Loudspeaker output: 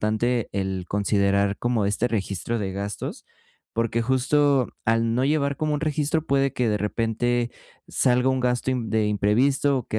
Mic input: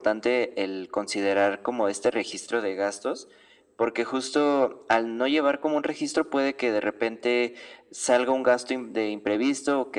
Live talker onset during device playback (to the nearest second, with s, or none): none